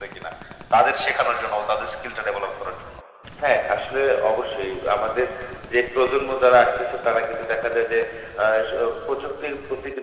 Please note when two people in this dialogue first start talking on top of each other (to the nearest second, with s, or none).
none